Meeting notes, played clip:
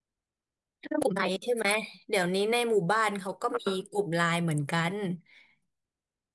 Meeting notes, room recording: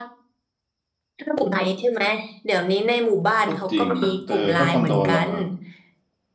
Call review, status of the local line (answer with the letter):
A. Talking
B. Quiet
A